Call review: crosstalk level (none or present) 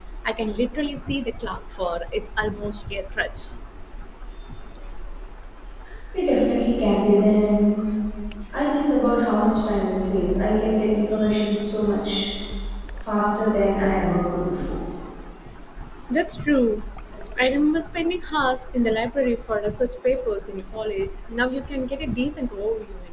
none